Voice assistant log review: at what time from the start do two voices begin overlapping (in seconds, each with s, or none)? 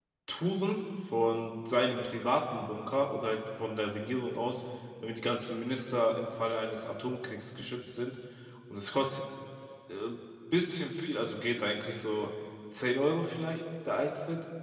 none